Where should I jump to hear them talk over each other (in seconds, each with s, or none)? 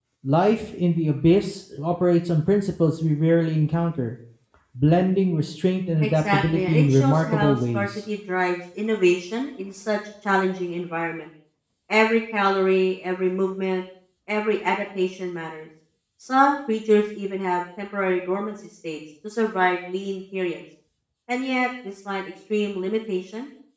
6.0 s